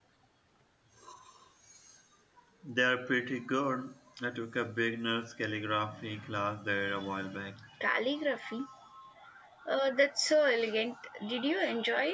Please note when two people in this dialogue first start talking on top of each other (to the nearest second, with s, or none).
none